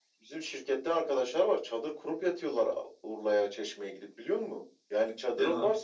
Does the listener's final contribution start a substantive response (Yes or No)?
No